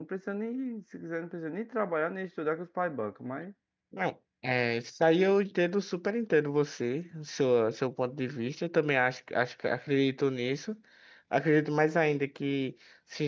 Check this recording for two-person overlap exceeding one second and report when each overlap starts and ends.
none

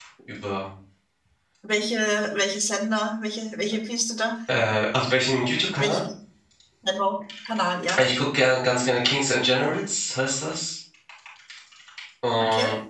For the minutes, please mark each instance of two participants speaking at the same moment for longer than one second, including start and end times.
none

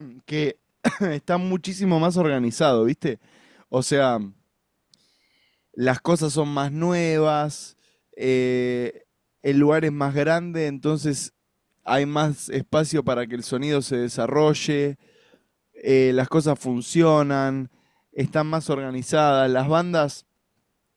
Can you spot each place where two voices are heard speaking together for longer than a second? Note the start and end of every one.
none

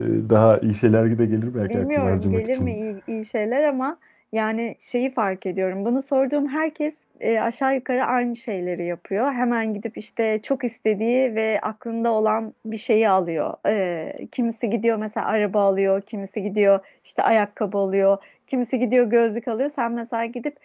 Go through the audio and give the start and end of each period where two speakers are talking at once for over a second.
1.6-2.8

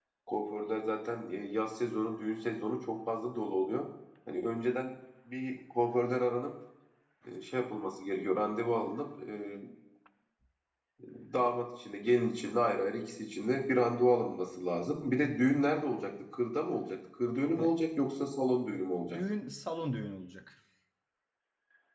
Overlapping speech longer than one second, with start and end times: none

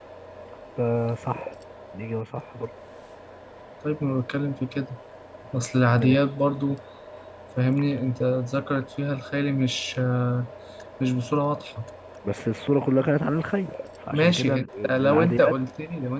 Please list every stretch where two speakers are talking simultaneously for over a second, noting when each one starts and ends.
14.1-15.5

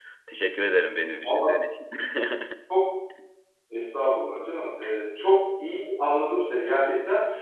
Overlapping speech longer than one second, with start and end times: none

